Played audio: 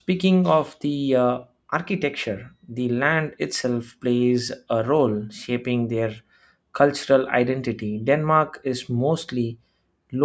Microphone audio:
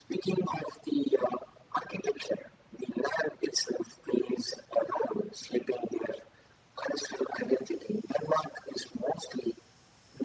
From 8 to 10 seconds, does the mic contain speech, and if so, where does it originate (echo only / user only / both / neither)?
echo only